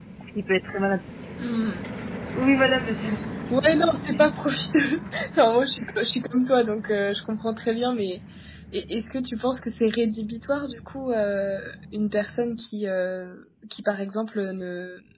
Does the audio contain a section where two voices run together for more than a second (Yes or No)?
No